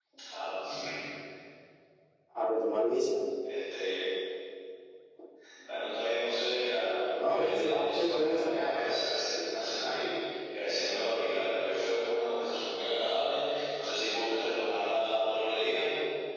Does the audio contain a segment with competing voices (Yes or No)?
Yes